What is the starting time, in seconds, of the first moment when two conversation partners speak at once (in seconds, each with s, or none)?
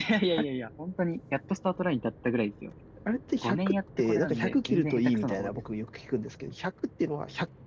3.4 s